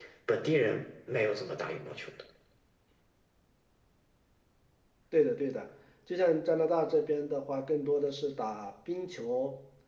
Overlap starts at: none

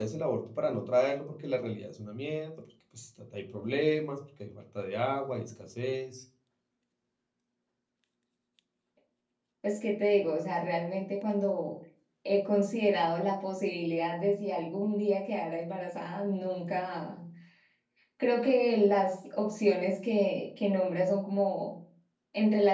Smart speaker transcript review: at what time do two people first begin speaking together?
none

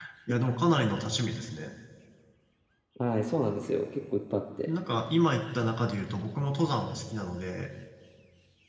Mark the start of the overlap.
none

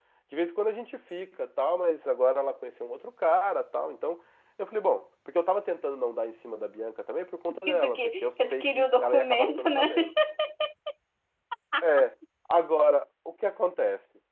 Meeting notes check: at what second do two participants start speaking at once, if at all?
7.5 s

